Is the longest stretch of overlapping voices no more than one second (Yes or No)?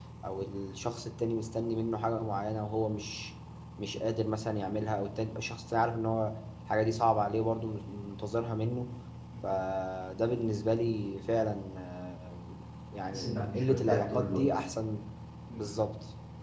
No